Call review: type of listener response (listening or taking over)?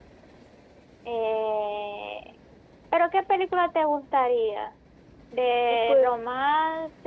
listening